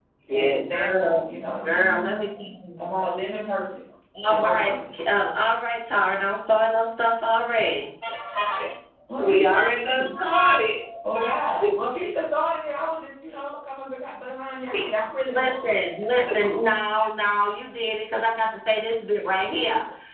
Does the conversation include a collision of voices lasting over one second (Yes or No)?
Yes